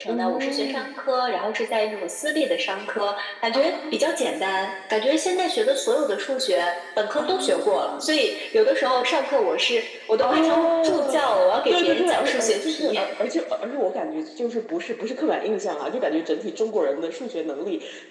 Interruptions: present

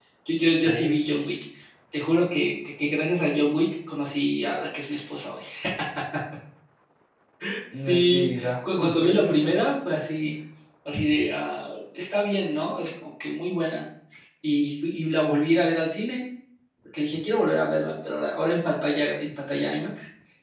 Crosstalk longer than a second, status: present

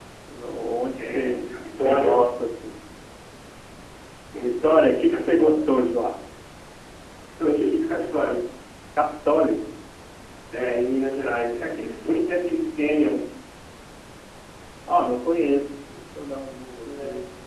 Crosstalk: present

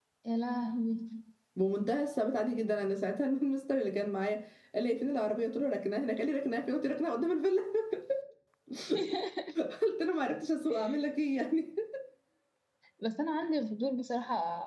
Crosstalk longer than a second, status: none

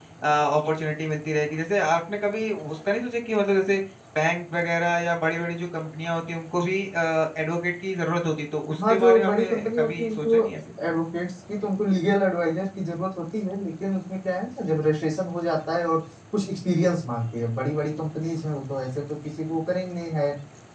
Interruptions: present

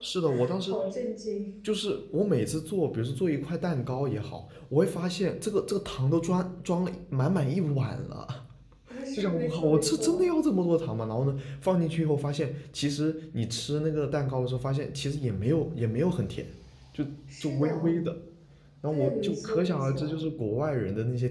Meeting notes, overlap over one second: present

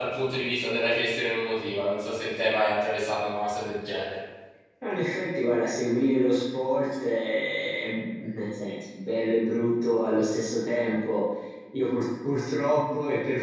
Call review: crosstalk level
none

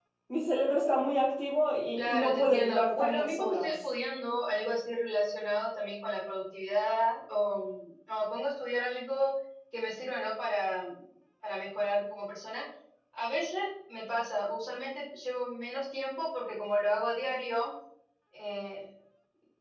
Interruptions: present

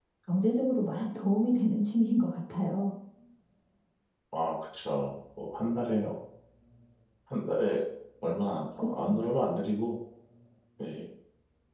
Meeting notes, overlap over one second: none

